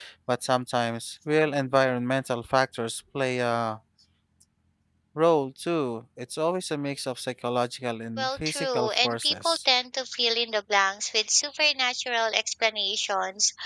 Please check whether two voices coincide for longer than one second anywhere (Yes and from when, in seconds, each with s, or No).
Yes, from 8.2 s